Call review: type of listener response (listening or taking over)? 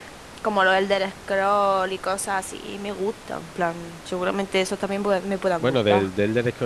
taking over